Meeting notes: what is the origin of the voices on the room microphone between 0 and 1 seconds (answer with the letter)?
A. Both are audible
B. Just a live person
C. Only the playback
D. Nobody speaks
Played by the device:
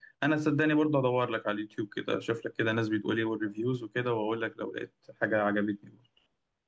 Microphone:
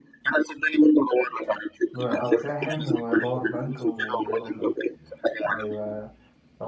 C